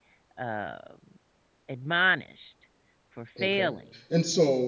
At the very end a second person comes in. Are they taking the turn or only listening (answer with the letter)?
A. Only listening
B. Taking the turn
B